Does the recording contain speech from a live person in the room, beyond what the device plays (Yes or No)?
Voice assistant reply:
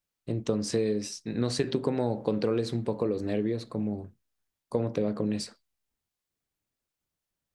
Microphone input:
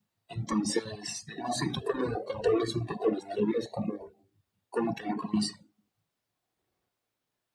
No